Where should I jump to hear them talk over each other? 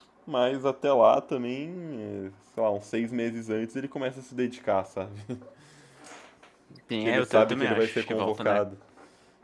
7.0 s

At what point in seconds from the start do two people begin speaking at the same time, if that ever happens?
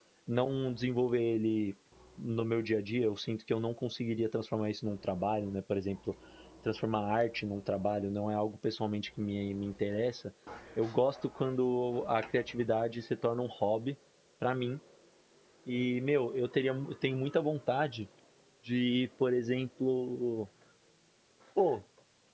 none

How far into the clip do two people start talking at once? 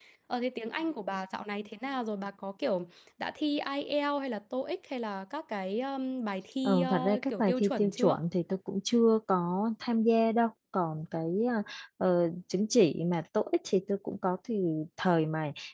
6.6 s

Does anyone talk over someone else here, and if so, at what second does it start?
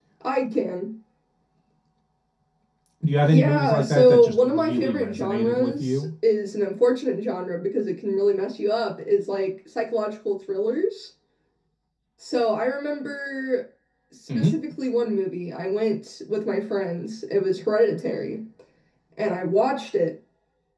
3.2 s

